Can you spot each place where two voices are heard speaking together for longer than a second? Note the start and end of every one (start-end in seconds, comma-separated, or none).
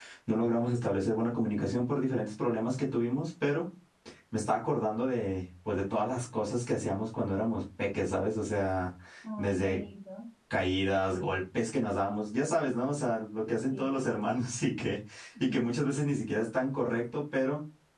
none